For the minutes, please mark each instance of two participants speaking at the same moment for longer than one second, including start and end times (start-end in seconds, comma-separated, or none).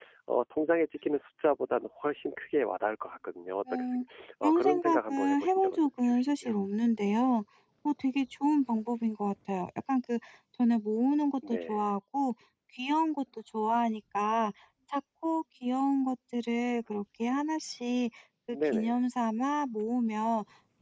4.4-6.5